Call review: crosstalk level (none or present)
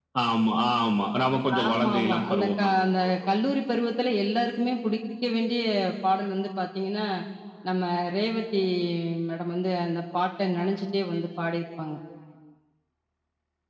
present